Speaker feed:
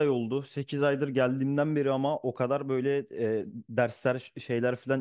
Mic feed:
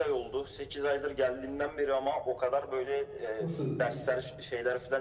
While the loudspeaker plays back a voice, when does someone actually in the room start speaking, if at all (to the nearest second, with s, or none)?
3 s